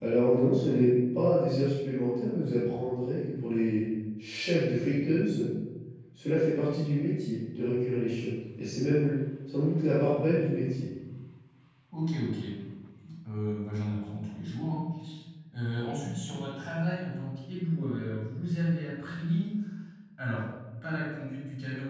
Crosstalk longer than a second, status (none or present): none